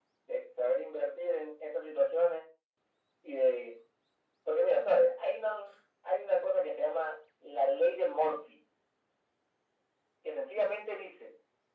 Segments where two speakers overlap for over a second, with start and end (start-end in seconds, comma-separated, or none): none